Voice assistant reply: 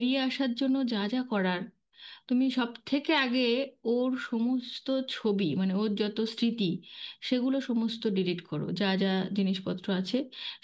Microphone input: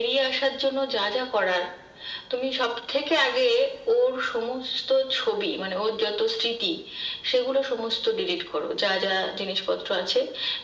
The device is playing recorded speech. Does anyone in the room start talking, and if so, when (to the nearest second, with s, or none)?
none